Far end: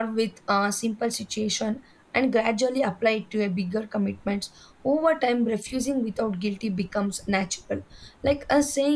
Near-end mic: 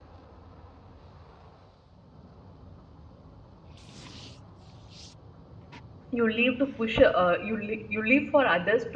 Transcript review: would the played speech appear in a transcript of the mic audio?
No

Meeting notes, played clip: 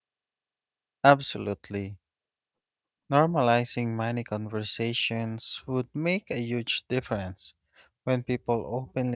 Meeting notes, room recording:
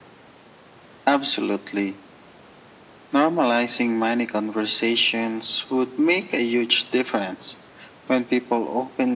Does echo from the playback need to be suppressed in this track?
Yes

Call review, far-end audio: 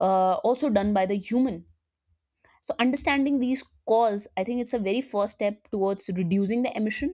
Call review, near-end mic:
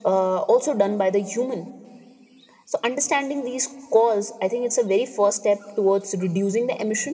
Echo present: Yes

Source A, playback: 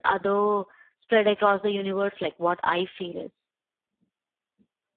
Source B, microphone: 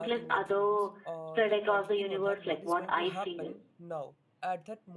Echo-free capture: No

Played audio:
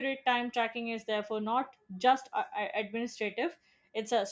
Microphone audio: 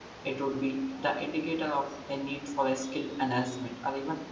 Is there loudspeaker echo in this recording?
No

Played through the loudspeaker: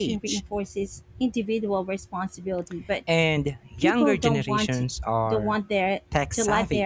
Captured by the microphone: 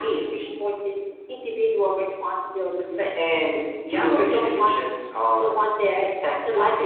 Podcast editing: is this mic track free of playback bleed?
No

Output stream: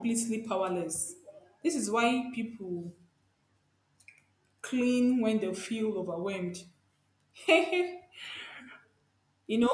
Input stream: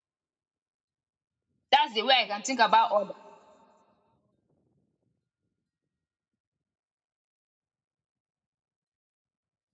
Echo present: No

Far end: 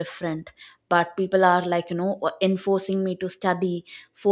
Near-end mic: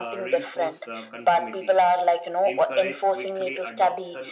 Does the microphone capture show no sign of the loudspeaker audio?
No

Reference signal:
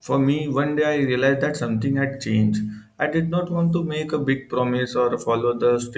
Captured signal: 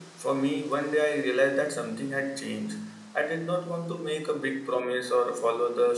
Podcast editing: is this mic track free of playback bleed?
No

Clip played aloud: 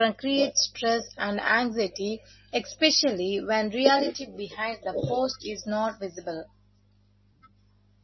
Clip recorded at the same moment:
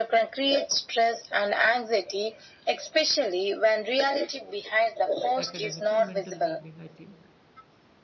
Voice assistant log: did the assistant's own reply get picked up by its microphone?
Yes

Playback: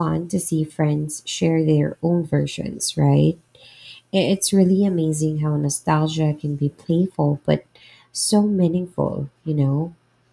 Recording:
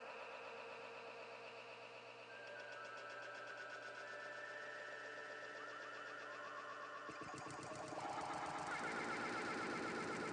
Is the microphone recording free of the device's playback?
Yes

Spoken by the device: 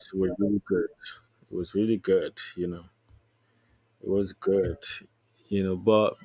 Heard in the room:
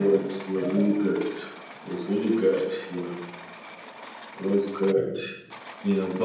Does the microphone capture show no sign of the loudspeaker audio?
No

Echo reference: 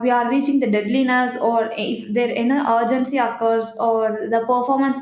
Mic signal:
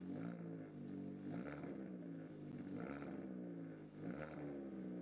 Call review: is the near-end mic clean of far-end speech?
Yes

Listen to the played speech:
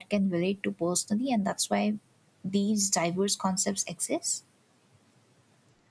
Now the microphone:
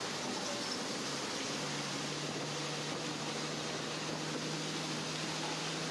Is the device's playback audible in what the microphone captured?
No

